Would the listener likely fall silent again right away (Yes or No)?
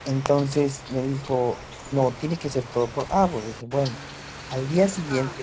Yes